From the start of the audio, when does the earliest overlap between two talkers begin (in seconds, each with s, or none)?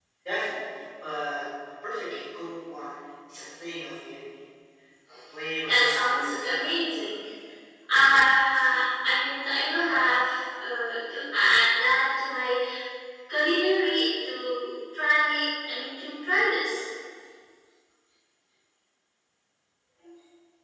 5.6 s